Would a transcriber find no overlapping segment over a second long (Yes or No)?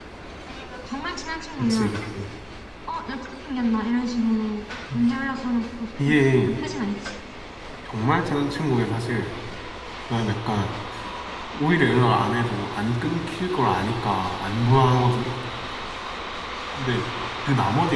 Yes